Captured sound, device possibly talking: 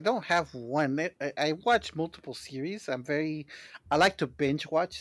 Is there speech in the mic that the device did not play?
Yes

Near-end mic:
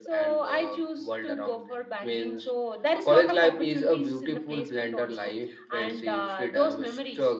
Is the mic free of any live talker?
Yes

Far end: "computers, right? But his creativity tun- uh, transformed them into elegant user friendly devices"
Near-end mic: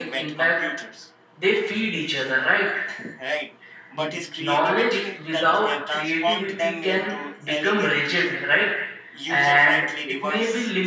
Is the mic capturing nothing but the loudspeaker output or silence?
No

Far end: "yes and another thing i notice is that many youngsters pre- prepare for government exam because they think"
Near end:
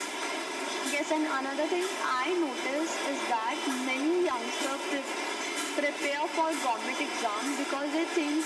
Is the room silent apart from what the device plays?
Yes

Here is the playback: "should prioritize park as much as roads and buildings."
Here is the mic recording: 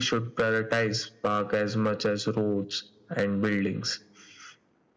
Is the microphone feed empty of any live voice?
Yes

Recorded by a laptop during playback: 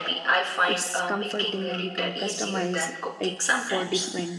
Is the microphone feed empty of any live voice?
No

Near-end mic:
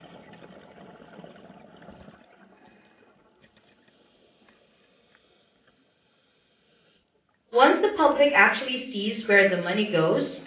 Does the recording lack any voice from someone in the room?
No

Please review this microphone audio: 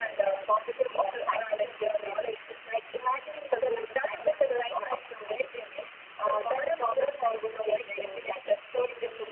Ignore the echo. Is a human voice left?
No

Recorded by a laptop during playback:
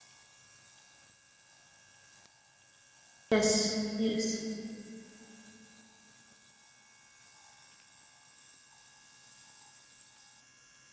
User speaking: Yes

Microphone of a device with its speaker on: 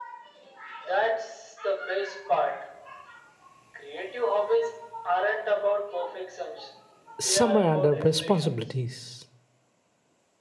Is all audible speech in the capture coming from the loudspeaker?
No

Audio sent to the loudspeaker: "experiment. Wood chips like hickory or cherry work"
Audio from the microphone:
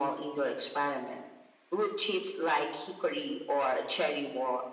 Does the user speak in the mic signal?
No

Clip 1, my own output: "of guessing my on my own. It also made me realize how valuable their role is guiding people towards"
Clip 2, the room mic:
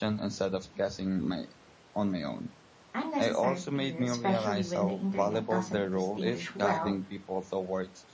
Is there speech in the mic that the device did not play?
Yes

